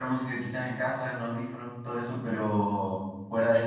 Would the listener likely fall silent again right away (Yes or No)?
Yes